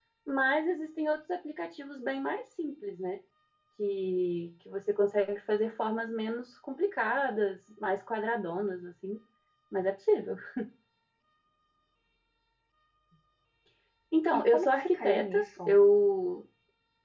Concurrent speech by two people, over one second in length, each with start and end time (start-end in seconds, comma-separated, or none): 14.3-15.8